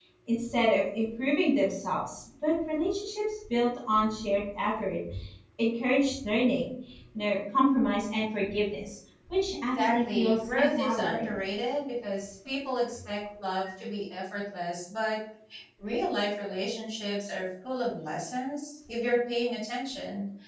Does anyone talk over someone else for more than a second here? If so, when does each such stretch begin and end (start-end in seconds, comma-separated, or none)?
9.8-11.3